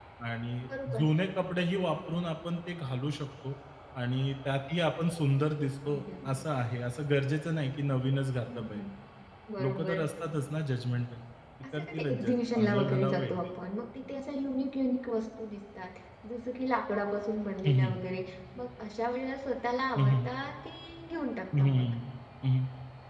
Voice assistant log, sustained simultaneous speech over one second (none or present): present